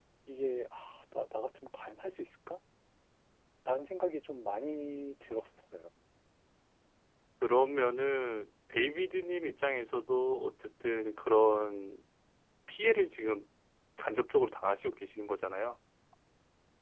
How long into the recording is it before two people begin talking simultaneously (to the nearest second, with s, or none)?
none